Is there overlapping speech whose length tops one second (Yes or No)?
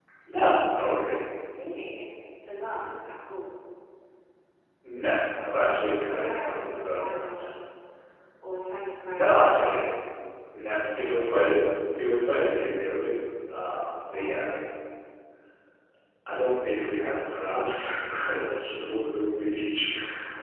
Yes